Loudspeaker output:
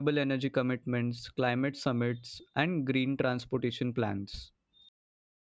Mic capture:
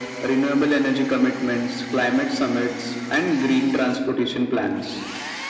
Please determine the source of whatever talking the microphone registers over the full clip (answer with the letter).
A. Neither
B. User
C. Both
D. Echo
D